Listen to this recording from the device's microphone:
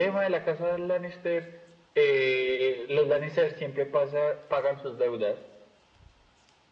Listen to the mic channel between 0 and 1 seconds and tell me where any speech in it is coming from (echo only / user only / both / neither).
echo only